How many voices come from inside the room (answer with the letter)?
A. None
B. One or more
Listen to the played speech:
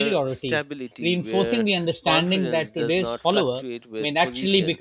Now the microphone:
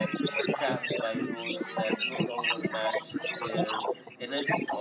B